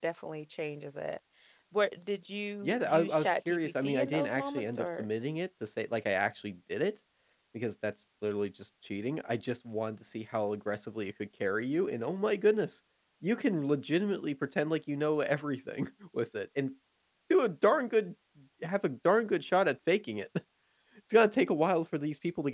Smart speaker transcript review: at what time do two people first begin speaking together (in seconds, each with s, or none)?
2.6 s